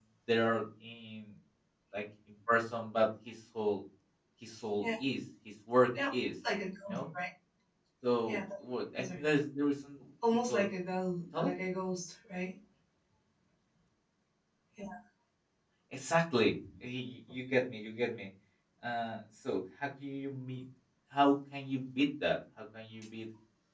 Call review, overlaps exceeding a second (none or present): none